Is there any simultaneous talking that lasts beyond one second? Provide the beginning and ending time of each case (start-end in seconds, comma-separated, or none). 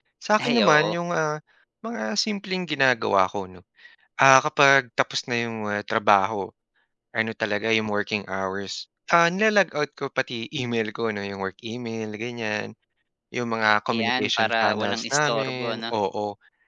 13.9-15.8